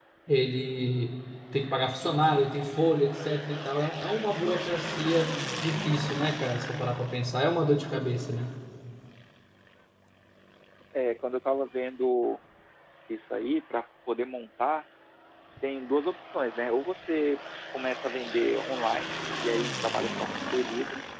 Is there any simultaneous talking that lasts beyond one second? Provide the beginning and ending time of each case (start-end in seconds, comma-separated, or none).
none